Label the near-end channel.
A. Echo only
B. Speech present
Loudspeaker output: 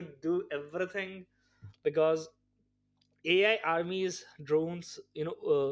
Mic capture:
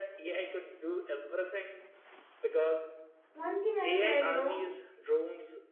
B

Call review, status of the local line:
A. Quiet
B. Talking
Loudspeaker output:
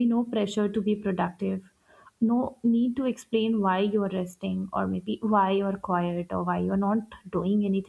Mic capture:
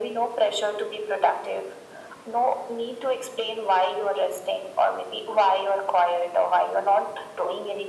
A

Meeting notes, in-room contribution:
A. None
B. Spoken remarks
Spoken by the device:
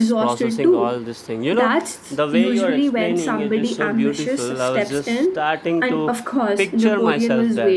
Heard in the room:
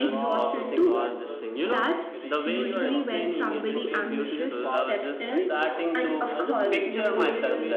B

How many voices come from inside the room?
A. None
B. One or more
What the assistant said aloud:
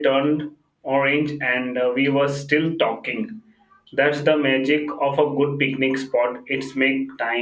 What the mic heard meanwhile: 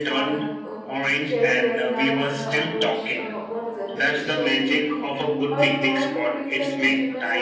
B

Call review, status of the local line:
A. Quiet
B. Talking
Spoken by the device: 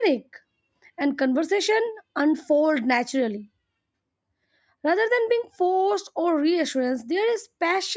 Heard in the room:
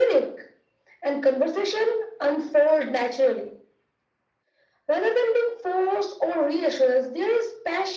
A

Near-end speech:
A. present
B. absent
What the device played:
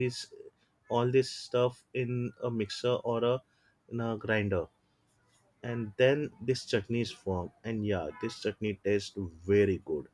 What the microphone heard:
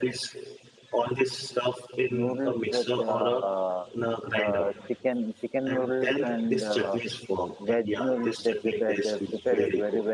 A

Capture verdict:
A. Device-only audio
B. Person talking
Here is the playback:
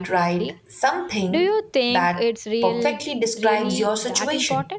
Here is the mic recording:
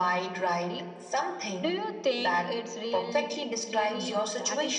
A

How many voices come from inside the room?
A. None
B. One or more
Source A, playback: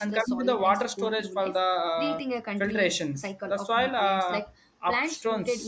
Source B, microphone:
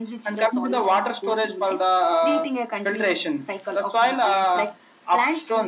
A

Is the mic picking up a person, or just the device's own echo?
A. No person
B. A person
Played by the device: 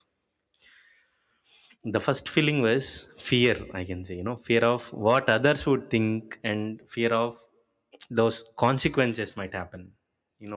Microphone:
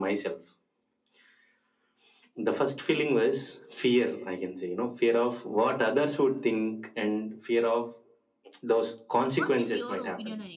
B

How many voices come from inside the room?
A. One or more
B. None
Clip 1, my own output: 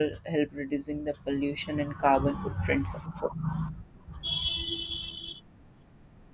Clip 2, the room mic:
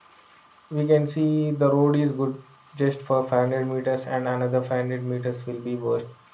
A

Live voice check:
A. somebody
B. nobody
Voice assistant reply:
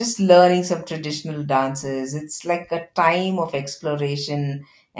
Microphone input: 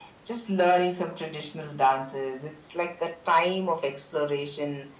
B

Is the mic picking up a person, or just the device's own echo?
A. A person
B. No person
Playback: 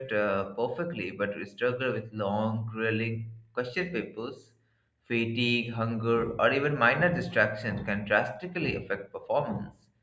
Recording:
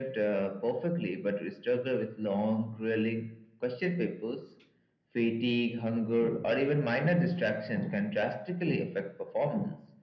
B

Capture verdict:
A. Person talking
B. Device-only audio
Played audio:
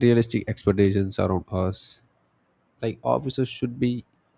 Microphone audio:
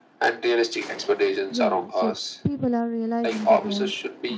A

